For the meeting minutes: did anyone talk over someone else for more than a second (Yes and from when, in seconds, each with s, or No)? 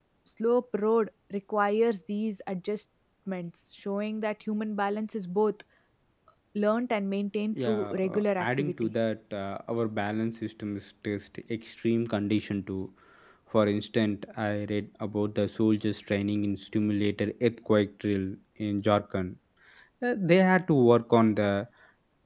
Yes, from 7.5 s